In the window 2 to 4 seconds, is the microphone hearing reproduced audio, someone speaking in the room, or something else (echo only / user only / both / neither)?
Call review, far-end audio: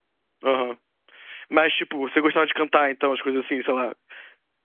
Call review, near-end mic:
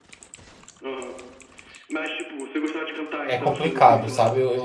both